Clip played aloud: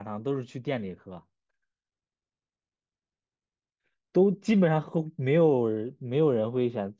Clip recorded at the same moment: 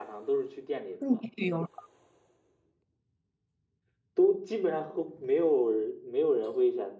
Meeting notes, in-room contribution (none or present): present